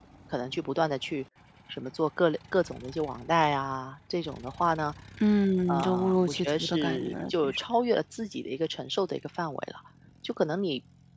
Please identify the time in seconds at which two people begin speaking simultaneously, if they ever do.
5.7 s

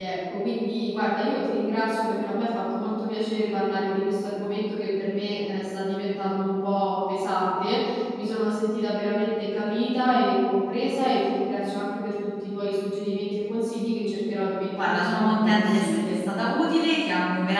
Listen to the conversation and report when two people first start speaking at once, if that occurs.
14.7 s

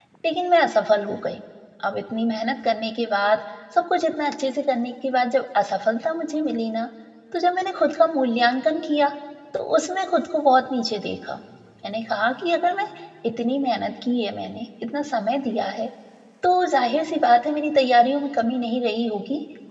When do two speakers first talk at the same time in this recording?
none

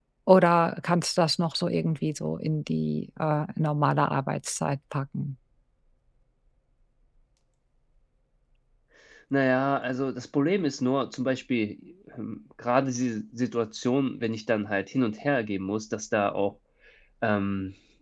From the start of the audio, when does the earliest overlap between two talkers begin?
none

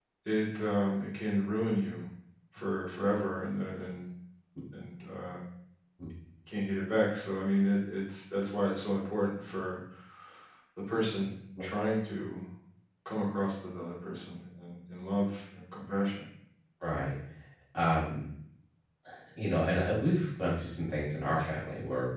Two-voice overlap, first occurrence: none

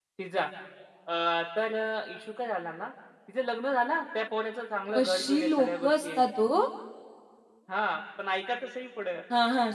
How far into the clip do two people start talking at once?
4.9 s

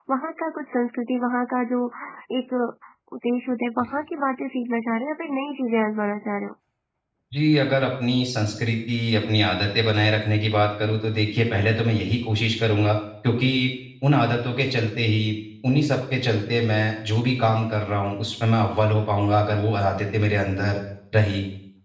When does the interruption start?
none

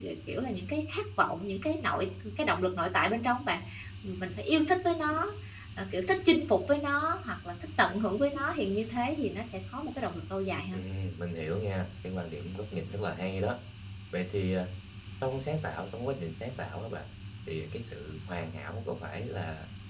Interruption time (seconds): none

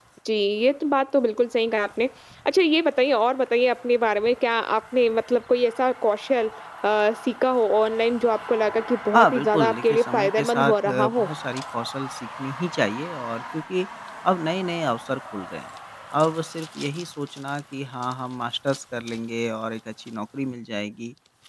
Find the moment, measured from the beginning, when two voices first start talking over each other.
9.1 s

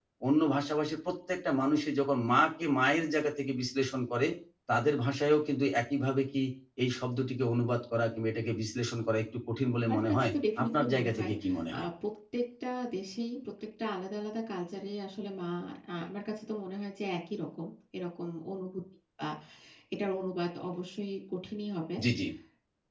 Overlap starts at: 9.8 s

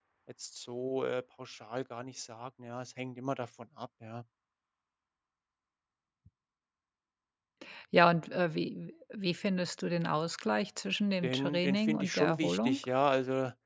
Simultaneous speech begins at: 11.2 s

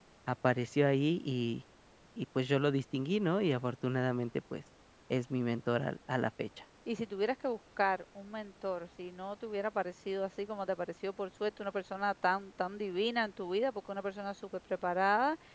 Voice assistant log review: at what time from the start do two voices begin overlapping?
none

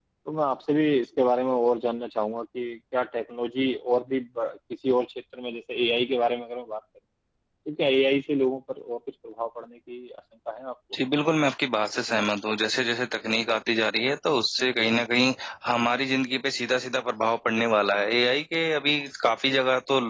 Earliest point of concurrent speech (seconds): none

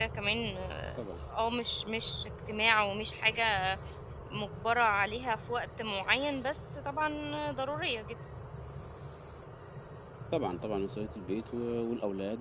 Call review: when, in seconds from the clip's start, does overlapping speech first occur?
none

